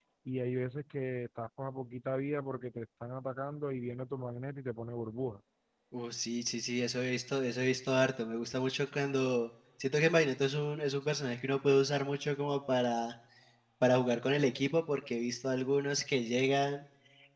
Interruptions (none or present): none